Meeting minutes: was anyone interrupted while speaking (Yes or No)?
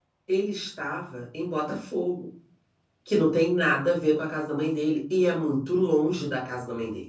No